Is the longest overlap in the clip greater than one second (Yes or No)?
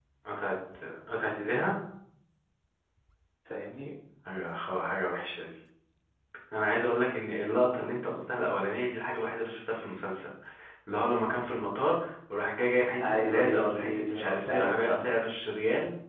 Yes